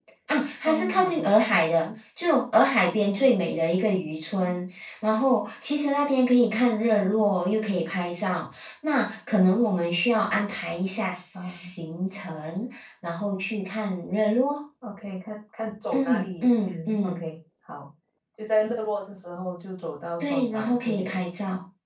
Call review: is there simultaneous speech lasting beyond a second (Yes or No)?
Yes